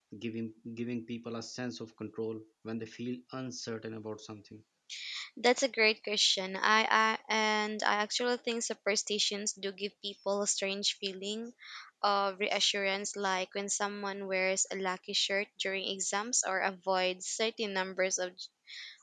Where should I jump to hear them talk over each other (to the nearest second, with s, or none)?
none